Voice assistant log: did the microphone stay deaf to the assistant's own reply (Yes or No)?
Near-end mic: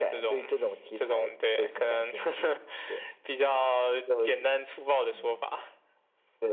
No